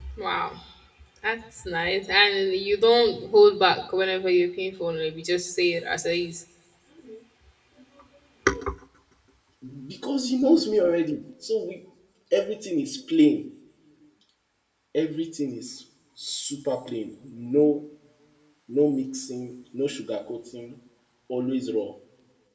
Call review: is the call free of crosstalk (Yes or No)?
Yes